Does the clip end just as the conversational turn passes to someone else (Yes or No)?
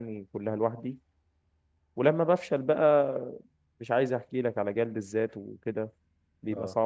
Yes